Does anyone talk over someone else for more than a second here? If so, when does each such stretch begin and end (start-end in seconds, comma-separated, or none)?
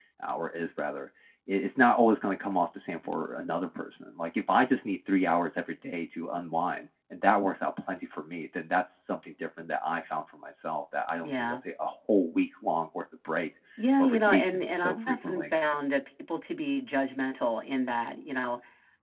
14.0-15.5